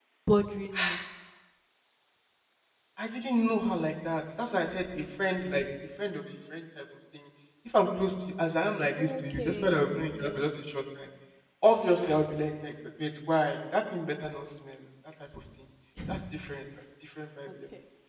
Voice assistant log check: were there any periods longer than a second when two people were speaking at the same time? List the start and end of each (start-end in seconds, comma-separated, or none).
9.0-10.4